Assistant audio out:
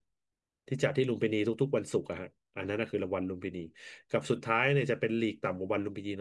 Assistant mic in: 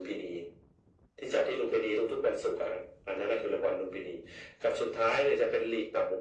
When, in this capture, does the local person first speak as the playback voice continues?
none

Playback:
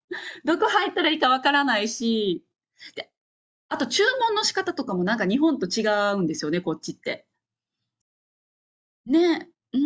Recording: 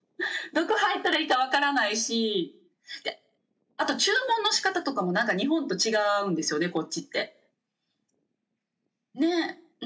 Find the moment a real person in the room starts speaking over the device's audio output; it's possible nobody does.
none

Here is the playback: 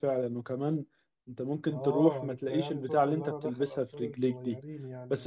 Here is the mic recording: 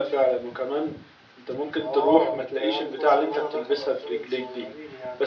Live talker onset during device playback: none

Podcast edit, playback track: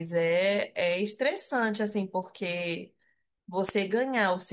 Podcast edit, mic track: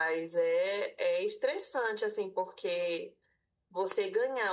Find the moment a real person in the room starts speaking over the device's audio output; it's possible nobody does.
none

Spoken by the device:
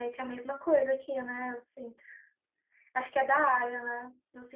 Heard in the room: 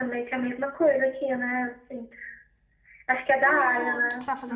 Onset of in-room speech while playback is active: 3.4 s

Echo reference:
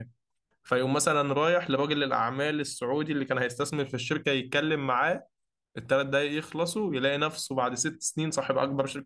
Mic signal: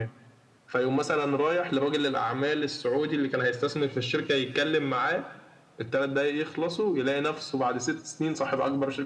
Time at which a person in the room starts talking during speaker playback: none

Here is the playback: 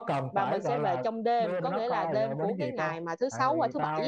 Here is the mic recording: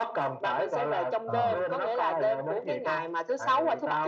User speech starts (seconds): 1.2 s

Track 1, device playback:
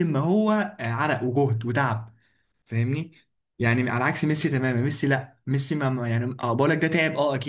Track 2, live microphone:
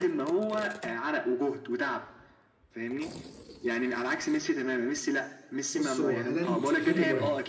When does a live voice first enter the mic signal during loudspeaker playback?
5.7 s

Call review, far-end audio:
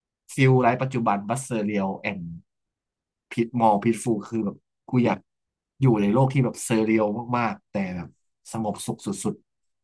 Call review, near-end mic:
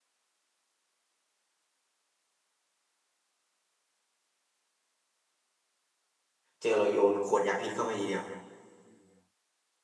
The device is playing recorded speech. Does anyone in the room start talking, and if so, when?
6.6 s

